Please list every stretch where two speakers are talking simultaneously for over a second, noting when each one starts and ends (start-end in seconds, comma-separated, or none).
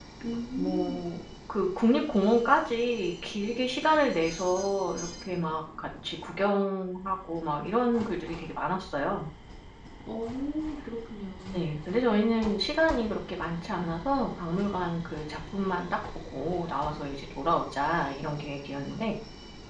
none